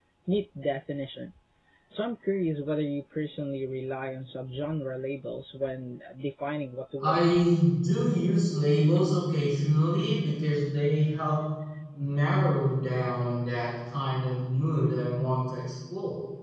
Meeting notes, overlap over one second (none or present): none